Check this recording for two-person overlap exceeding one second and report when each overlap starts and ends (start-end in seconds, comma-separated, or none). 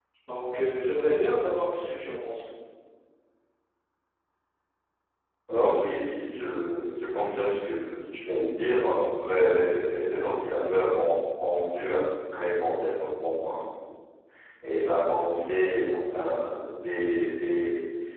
none